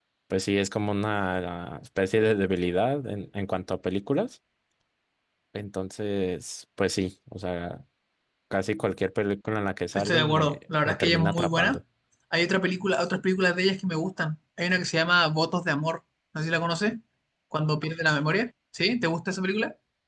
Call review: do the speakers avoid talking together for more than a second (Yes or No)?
No